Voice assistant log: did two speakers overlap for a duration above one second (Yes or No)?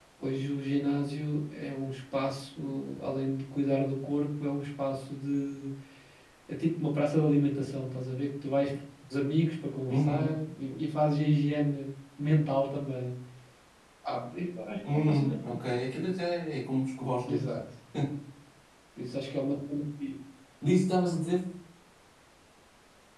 No